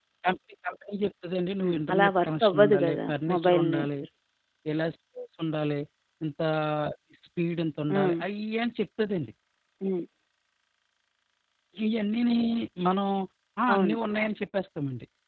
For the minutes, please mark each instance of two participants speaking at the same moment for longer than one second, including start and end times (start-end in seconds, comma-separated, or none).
1.6-3.9